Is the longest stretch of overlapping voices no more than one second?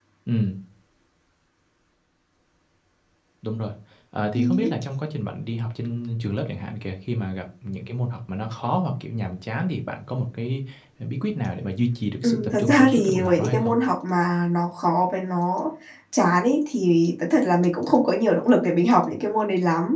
No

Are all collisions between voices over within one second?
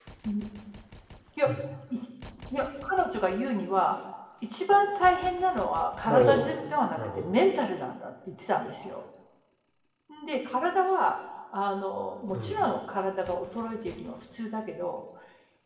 No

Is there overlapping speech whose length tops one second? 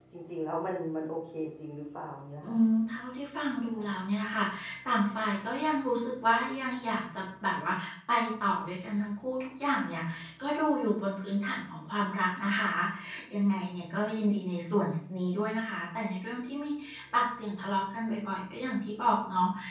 No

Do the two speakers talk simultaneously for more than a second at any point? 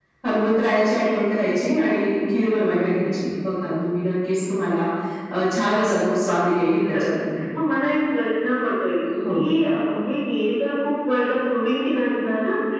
No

